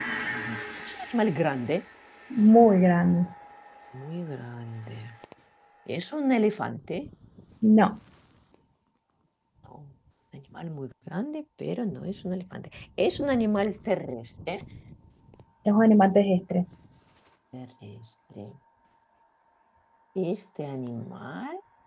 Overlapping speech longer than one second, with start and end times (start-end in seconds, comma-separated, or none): none